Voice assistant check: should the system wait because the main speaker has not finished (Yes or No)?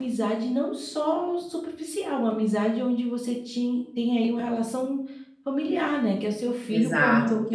No